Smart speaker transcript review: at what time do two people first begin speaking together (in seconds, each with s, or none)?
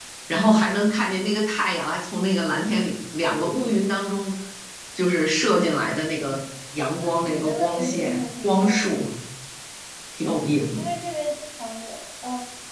7.0 s